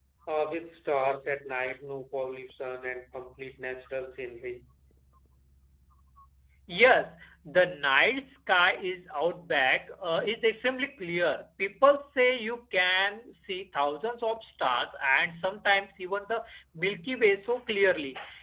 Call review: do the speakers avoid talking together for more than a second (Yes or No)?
Yes